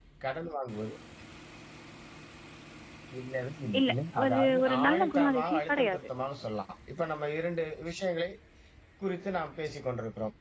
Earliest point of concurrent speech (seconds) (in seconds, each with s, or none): 3.8 s